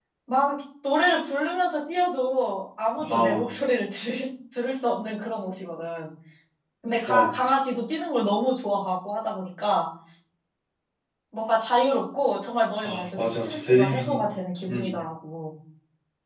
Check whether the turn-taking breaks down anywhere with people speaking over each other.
Yes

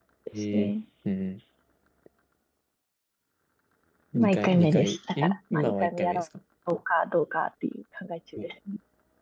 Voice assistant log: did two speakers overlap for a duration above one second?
Yes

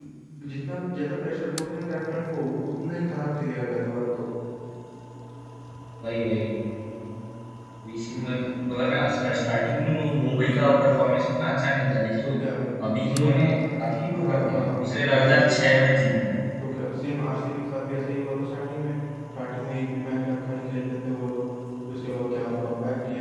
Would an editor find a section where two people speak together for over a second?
Yes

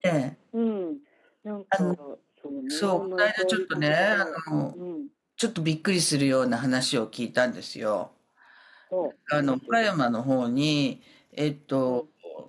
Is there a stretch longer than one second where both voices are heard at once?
Yes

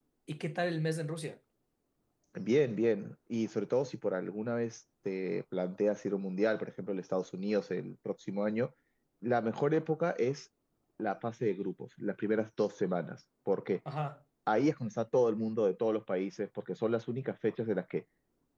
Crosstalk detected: No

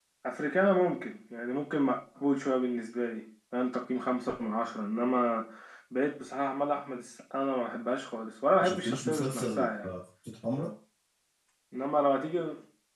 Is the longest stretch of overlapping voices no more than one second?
No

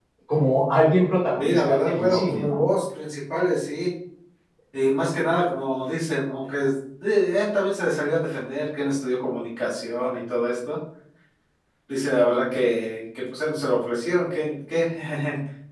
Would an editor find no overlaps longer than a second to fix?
No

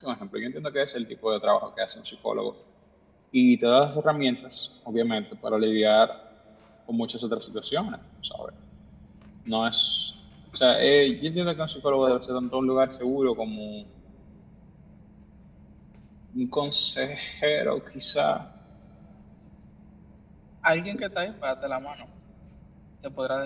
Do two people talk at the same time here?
No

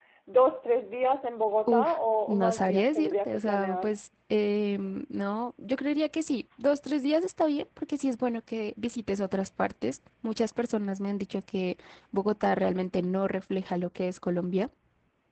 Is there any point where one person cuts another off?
Yes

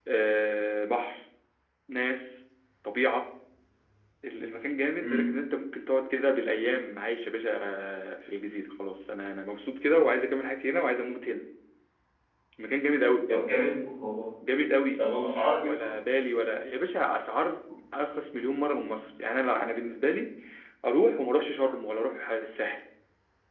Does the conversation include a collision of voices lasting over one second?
No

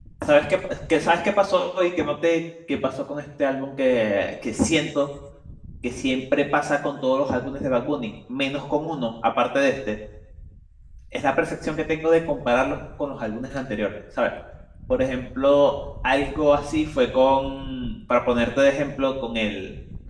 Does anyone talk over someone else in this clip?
No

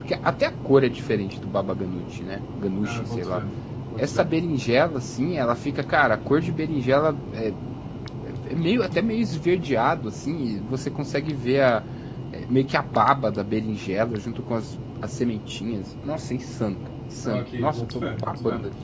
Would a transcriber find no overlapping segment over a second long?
No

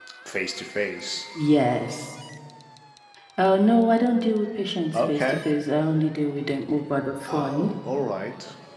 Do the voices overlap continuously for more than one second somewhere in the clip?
No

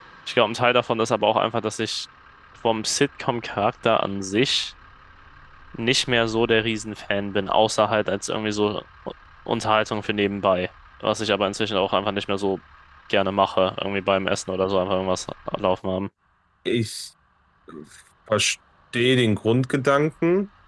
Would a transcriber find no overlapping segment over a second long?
Yes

